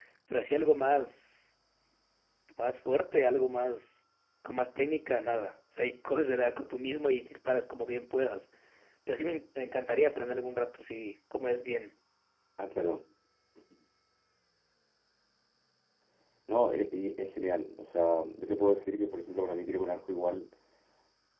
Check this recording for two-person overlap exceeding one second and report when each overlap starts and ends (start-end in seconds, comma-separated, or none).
none